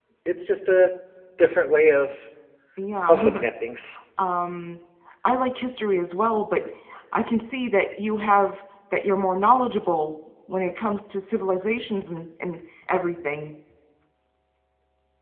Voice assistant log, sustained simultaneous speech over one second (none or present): none